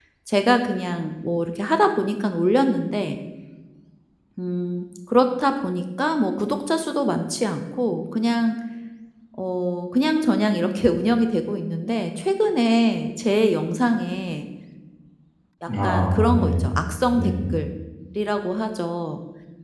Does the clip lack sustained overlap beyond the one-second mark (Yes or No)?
No